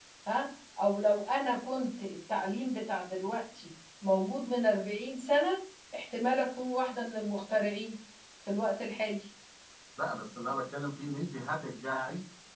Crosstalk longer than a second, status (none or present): none